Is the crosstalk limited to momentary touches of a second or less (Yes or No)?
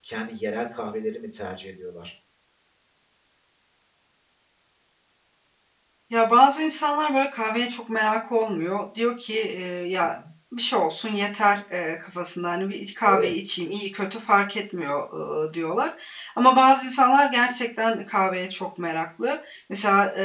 Yes